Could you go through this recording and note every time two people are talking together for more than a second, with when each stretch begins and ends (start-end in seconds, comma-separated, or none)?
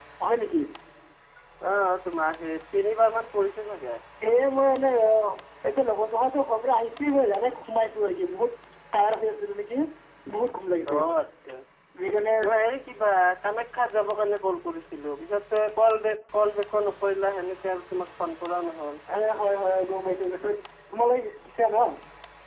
none